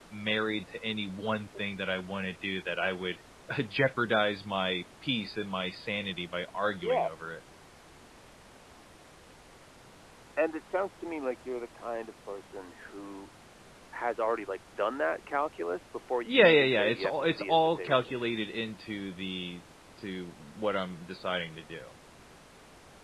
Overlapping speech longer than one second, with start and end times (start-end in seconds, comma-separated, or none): 16.2-18.1